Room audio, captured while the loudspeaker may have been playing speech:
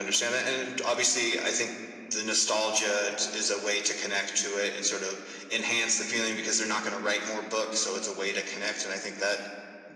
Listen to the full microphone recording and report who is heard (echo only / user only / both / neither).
echo only